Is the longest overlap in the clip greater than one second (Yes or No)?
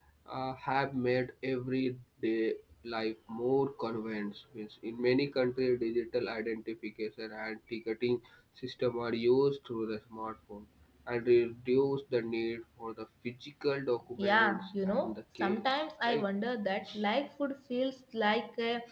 Yes